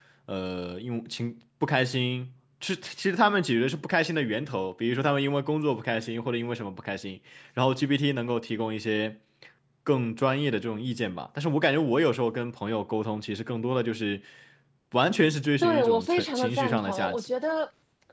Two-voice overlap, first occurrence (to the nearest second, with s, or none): 16 s